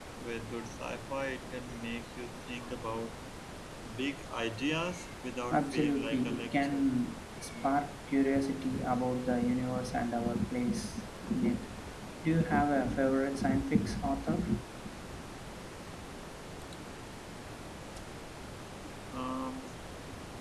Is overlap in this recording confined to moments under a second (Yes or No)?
No